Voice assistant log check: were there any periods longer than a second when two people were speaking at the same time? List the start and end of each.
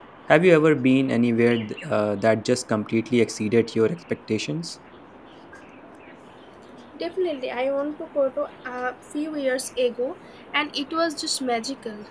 none

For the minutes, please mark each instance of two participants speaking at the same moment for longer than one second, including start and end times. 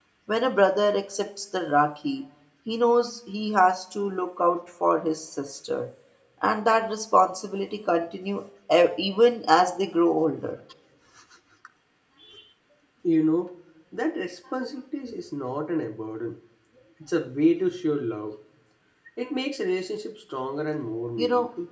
none

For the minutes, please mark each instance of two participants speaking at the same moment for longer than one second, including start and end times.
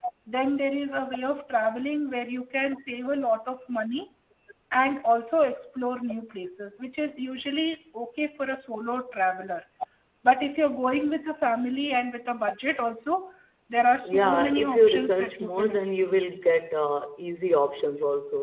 14.2-16.2

